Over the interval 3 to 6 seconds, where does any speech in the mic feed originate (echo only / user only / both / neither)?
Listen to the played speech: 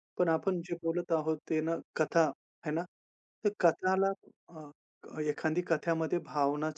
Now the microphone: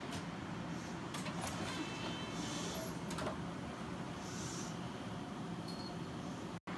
neither